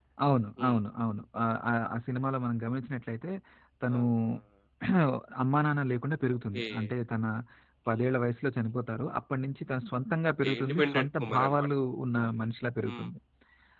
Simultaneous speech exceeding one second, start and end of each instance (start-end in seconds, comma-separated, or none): 10.4-11.7